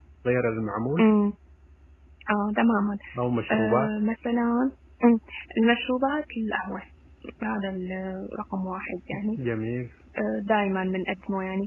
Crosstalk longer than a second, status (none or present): none